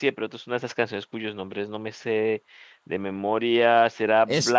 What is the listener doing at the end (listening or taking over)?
taking over